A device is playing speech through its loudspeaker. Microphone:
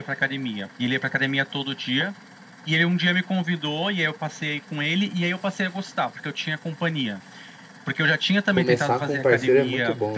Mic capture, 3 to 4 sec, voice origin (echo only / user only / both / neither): echo only